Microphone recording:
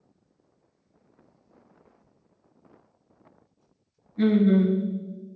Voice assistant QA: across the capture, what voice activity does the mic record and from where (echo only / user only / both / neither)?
user only